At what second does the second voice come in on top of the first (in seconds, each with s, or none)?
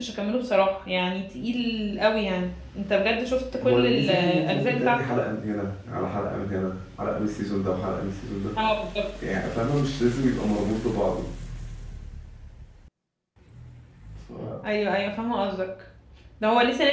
3.5 s